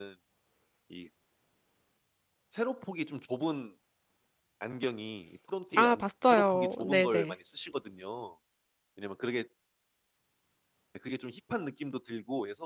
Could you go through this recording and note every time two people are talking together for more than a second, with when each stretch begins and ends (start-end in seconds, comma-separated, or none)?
5.8-7.4